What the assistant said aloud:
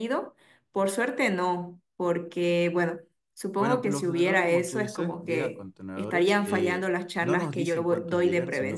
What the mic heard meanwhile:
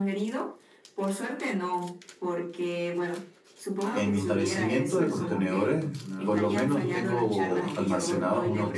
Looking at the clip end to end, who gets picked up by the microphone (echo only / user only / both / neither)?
both